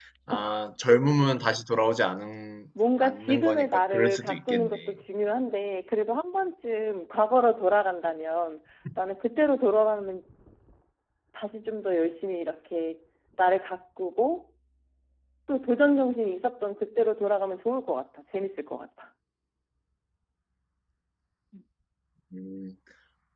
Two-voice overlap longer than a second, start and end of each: 3.0-4.9

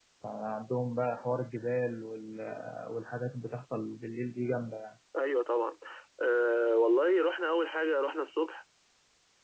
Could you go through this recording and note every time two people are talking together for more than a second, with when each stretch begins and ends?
none

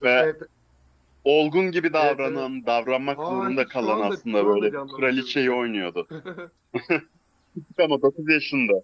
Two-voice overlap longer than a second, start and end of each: 3.1-5.6

